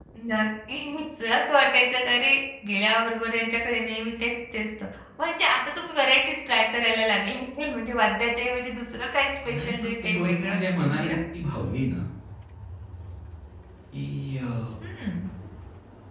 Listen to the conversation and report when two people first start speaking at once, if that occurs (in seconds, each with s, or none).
9.4 s